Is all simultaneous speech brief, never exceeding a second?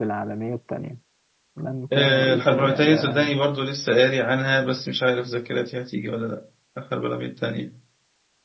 No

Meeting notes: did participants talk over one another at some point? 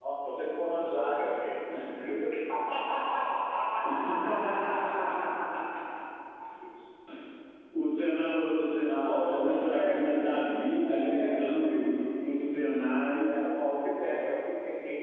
Yes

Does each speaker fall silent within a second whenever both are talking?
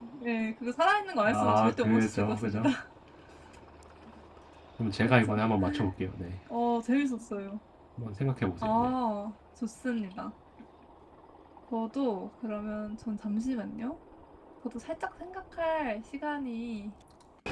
No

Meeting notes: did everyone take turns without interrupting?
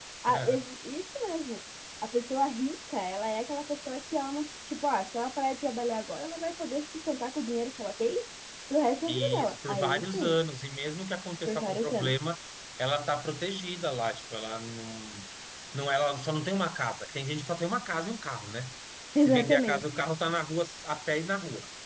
No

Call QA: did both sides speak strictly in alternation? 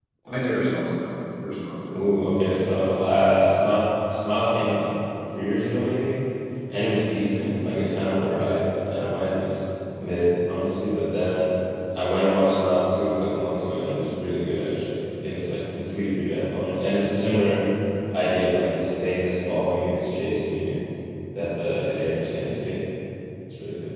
Yes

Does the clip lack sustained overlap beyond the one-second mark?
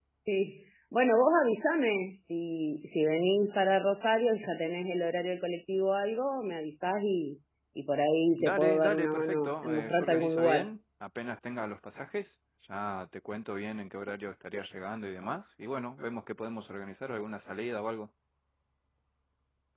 No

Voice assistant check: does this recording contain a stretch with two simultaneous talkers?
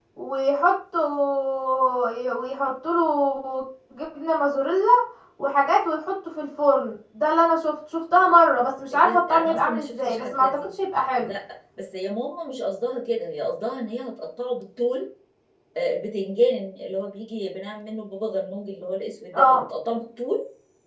Yes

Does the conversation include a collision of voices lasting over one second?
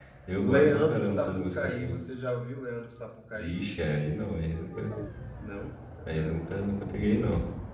Yes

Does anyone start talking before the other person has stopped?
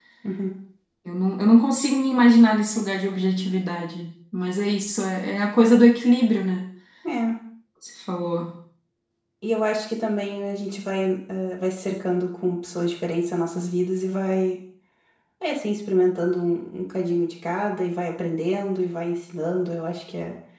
No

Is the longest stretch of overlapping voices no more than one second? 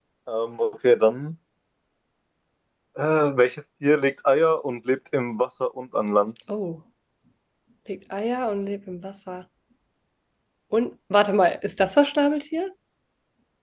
Yes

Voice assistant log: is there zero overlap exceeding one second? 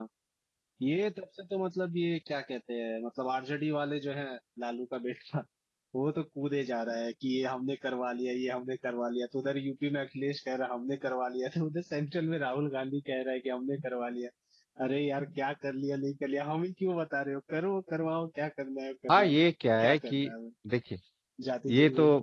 Yes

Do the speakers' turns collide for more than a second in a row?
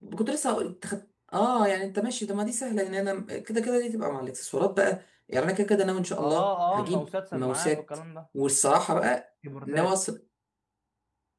Yes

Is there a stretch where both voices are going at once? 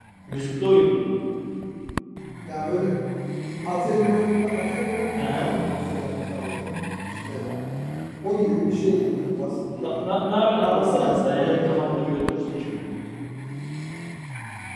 Yes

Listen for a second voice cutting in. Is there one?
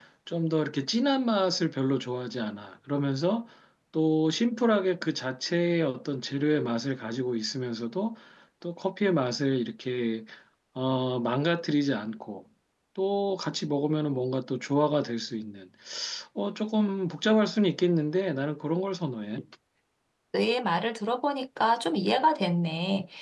No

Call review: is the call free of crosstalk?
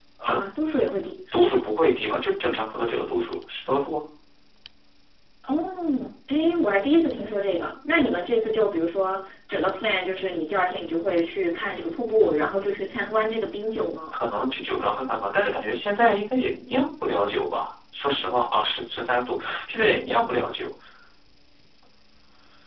Yes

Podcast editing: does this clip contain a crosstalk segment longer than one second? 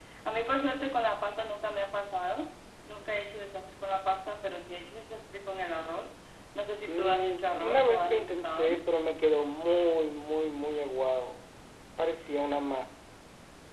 Yes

